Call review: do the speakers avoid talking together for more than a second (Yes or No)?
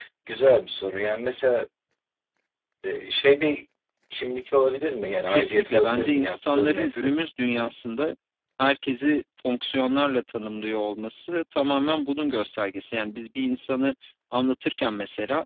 No